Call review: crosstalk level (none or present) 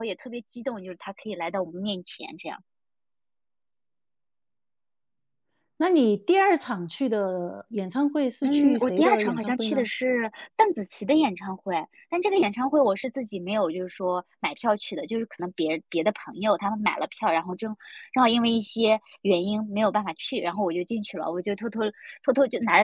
present